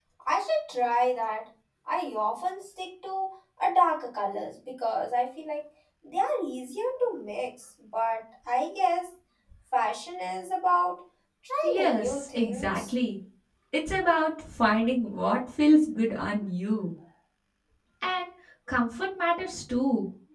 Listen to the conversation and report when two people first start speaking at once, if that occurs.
12 s

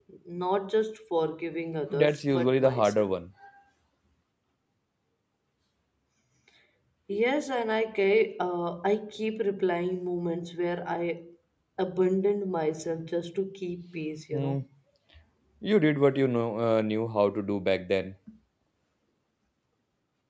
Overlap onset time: 2 s

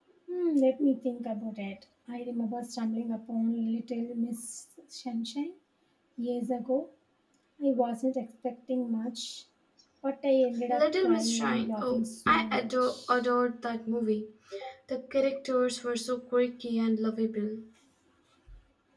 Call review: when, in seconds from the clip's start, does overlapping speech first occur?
11 s

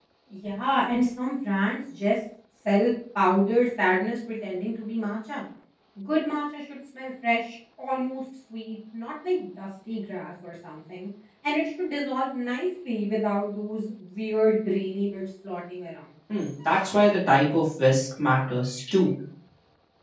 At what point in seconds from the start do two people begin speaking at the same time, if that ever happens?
none

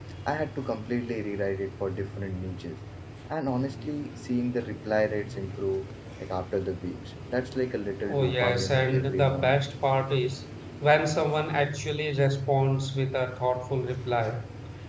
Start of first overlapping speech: 8 s

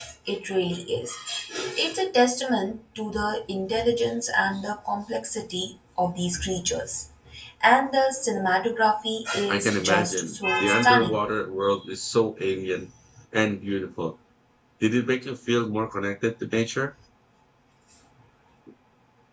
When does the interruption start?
9 s

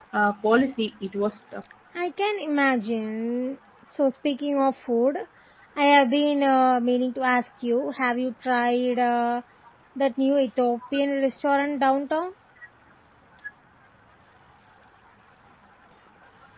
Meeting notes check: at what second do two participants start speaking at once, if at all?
none

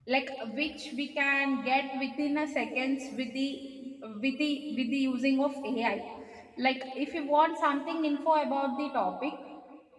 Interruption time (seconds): none

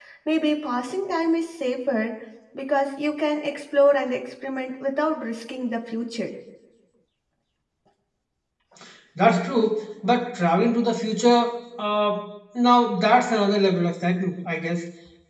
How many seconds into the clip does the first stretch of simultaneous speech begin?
none

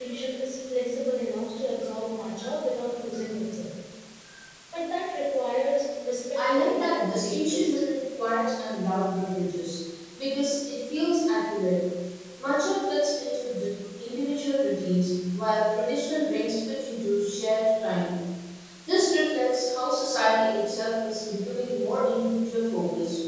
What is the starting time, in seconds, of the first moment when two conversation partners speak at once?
6 s

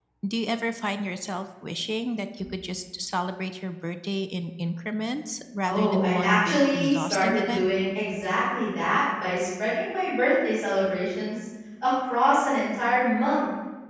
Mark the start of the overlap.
6 s

